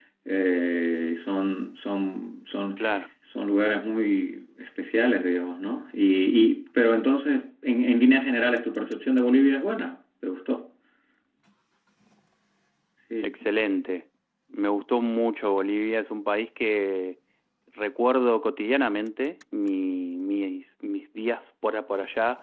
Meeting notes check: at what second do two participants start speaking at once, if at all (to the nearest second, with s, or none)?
none